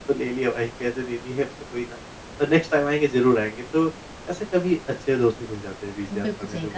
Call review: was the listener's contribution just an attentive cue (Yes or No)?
No